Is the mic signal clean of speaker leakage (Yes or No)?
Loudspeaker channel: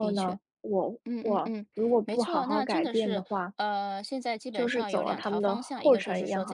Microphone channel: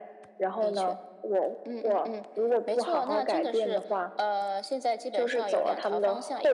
No